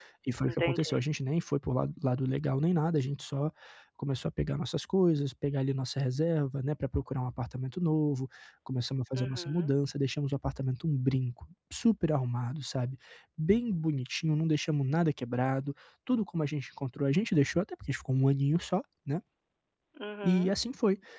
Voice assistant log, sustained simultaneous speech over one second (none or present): none